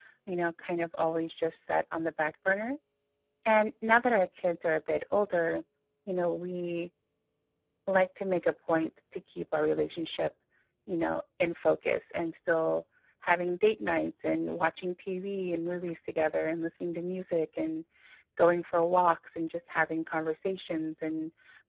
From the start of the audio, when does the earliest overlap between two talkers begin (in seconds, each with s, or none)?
none